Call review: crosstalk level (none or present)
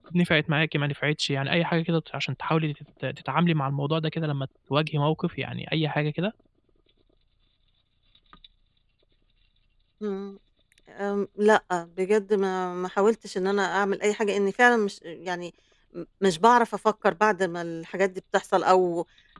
none